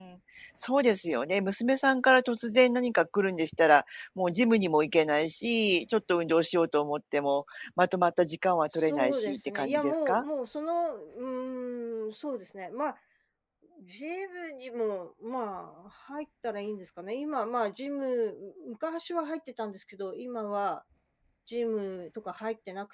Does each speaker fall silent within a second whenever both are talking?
No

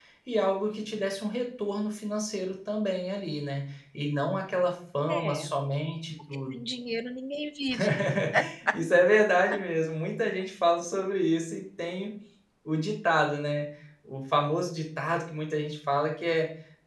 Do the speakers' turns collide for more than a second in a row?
No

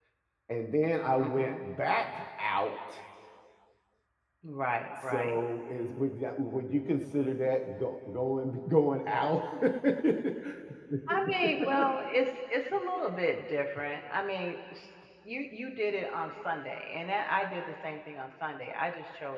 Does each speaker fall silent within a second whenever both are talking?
Yes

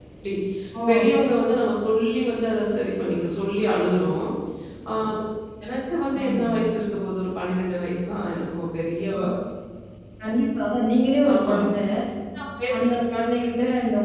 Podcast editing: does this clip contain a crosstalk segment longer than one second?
No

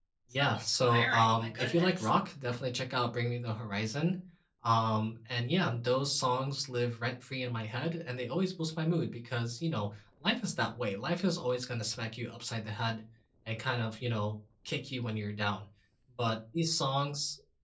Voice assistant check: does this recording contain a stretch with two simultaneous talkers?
Yes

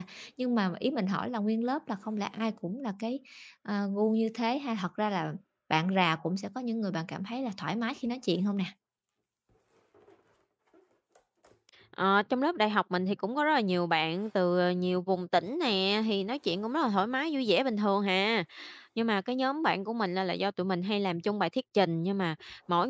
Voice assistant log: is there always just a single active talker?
Yes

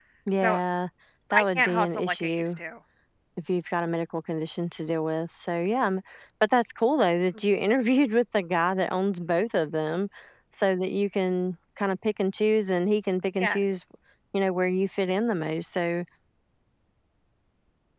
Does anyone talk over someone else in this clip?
Yes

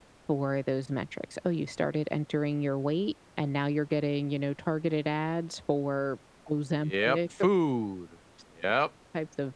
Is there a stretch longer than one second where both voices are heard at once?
No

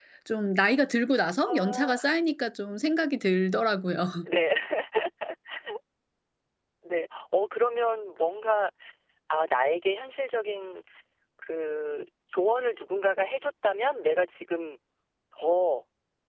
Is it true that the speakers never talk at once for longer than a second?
Yes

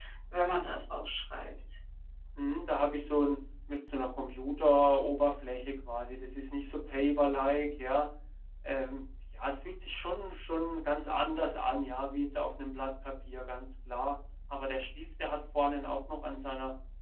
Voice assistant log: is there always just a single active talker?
Yes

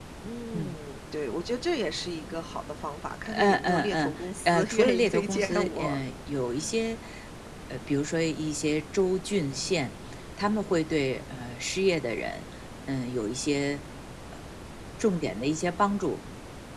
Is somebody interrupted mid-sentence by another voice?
Yes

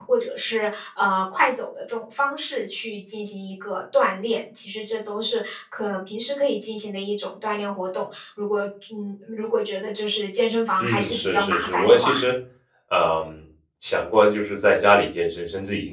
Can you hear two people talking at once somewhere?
Yes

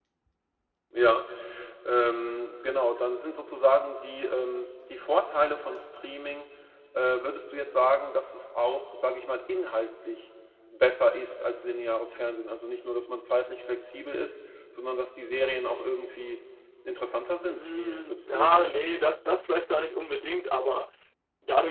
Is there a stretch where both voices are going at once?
Yes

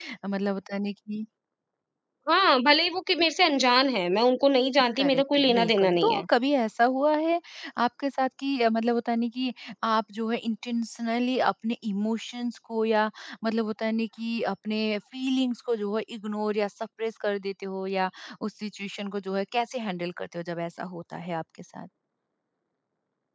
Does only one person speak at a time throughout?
No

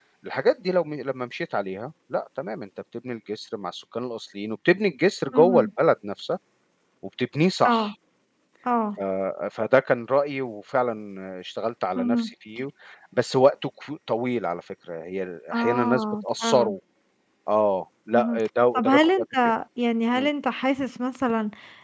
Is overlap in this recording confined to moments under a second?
No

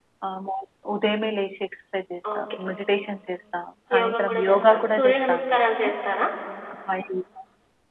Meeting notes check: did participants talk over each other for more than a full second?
Yes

